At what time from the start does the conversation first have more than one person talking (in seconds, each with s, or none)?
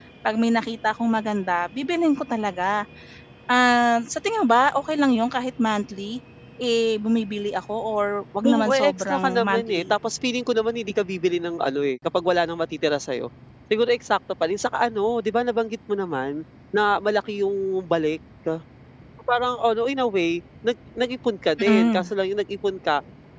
8.5 s